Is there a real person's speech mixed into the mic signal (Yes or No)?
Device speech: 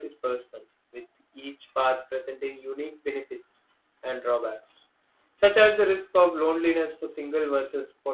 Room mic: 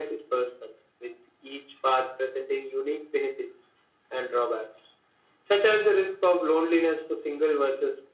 No